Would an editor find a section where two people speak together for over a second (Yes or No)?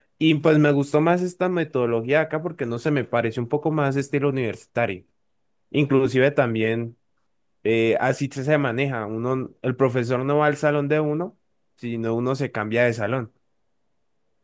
No